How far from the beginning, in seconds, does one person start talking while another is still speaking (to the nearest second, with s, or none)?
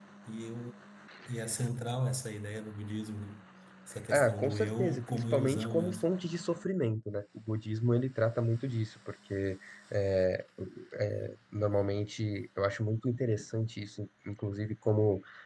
4 s